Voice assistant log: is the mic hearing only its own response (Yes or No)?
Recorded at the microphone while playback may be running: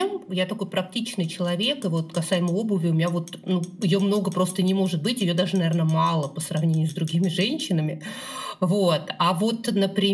Yes